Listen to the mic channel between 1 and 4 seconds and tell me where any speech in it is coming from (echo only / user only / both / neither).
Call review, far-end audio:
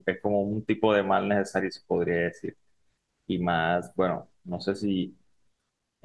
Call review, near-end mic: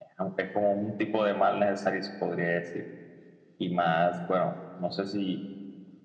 echo only